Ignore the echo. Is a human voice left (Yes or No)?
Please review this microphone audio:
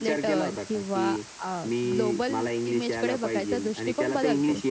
Yes